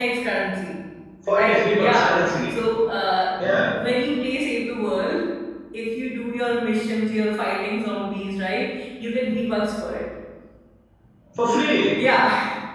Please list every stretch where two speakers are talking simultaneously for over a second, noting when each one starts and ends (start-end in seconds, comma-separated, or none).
1.3-2.5